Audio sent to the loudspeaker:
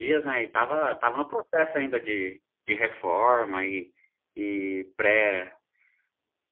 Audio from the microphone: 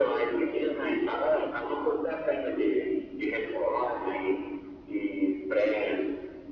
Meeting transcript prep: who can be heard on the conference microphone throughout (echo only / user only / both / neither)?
echo only